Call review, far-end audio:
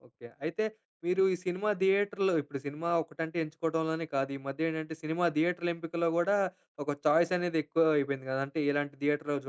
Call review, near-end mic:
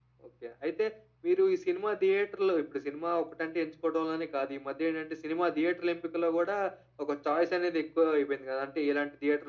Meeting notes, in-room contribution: none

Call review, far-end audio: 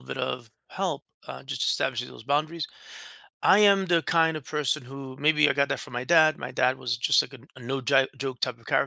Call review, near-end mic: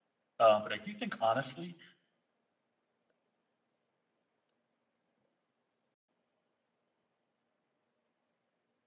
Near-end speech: present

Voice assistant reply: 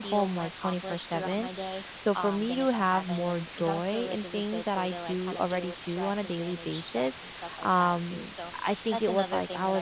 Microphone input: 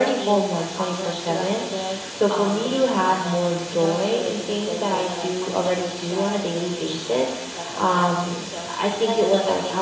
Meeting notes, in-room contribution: none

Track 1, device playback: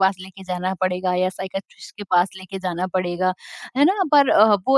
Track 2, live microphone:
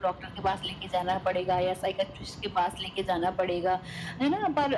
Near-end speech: none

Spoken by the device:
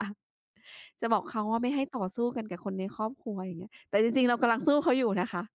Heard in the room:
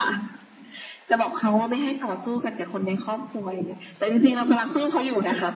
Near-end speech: none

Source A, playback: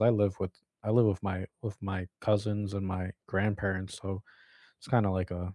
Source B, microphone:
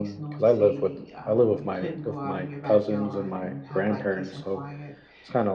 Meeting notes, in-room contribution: present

